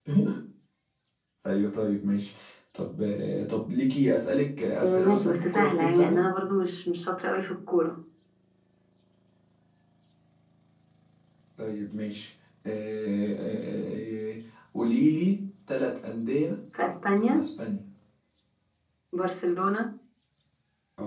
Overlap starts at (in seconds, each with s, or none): 4.8 s